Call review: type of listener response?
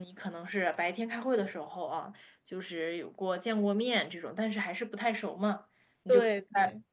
listening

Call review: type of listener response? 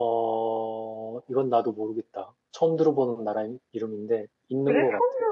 taking over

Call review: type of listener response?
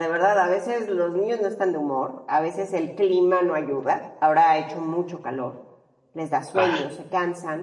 listening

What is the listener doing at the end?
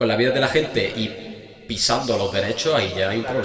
taking over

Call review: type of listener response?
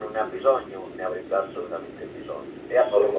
taking over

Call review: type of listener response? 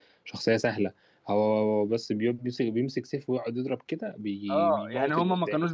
taking over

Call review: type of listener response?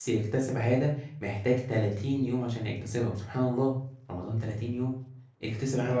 listening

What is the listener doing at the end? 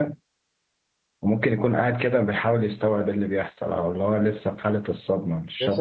taking over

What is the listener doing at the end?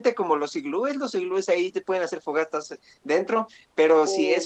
listening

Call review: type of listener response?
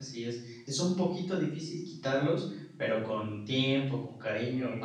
listening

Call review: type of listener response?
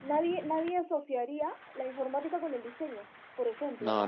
taking over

